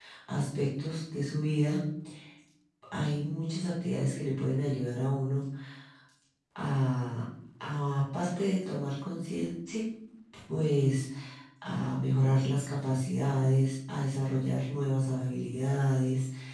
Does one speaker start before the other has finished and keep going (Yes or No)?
No